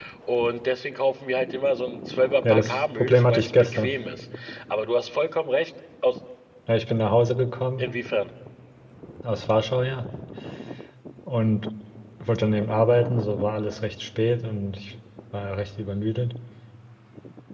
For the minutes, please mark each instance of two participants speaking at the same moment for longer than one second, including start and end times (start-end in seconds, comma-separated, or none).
2.4-3.9